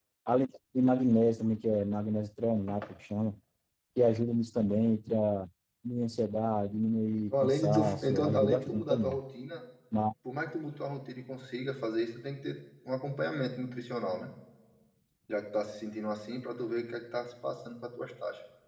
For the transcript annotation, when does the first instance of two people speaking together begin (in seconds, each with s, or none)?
7.3 s